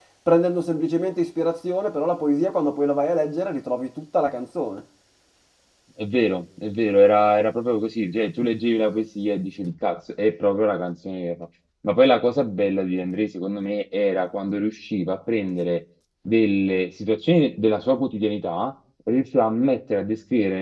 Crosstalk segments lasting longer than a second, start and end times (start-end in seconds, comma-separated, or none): none